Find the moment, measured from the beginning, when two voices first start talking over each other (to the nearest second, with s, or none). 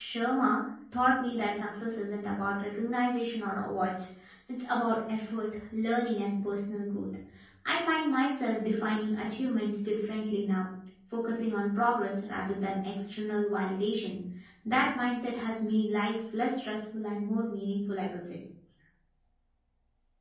none